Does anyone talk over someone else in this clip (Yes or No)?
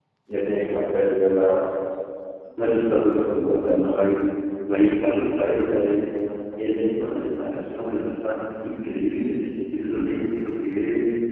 No